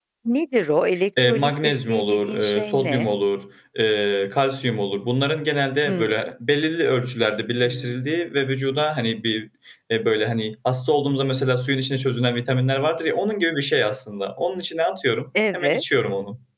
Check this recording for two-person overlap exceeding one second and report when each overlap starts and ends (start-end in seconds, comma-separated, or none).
1.2-3.1